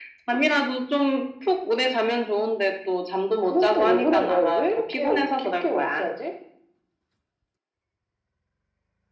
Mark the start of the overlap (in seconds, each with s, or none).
3.4 s